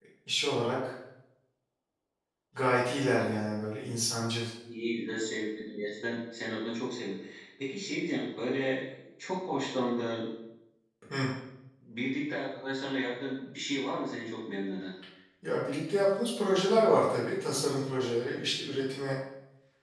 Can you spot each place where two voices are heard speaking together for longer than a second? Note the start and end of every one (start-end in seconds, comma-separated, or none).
none